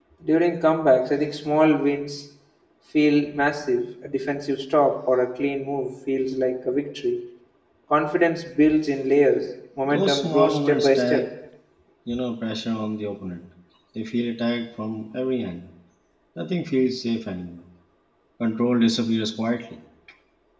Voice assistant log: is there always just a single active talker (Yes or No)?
No